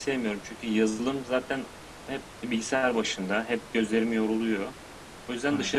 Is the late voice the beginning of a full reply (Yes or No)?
No